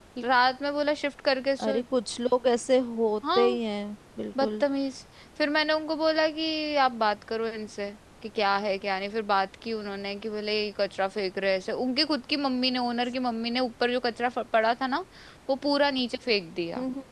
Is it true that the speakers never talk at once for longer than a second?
Yes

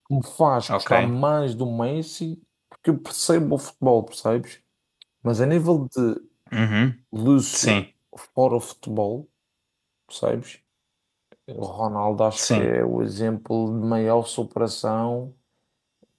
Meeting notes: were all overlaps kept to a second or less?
Yes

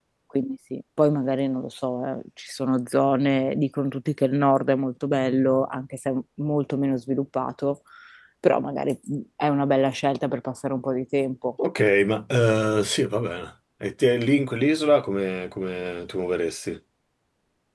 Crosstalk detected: No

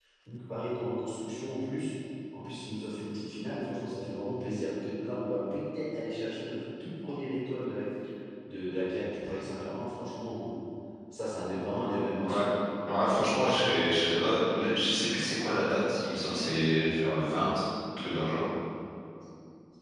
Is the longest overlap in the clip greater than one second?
No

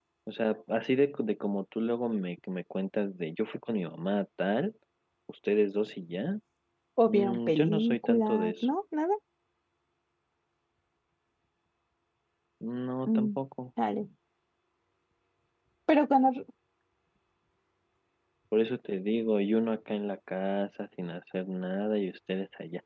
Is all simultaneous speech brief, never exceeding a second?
No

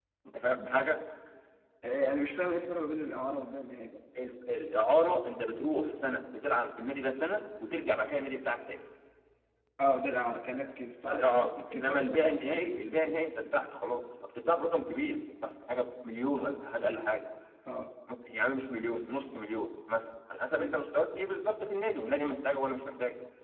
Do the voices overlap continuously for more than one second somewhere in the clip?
Yes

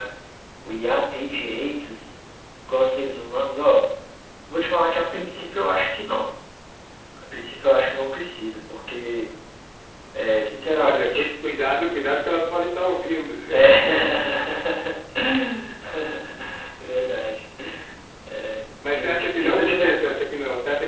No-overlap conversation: No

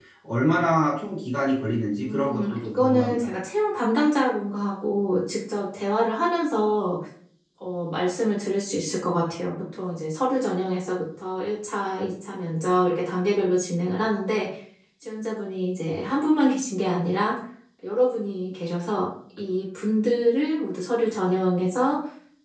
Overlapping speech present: Yes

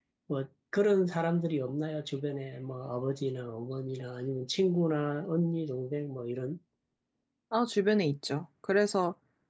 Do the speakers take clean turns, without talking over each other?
Yes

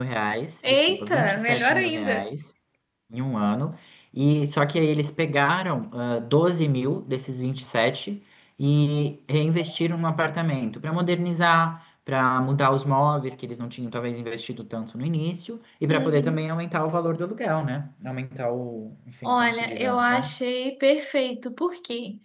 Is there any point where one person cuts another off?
Yes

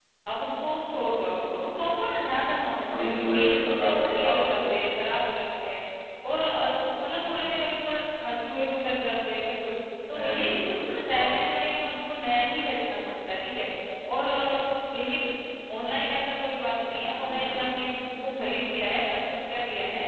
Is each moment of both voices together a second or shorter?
No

